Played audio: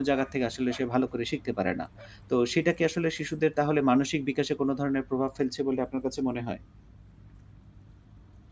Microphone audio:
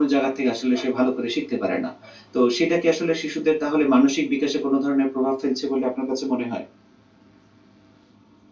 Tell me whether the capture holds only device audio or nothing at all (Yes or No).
Yes